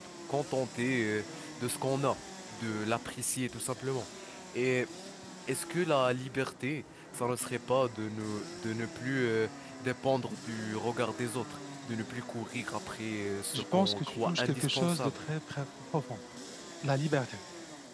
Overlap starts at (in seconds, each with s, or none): 13.5 s